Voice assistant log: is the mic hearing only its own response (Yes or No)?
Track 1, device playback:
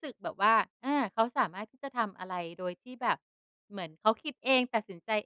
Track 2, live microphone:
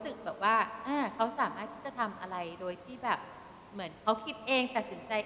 Yes